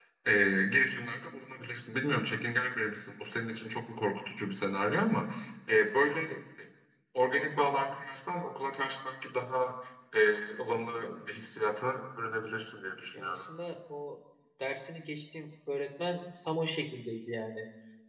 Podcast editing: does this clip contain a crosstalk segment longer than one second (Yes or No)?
No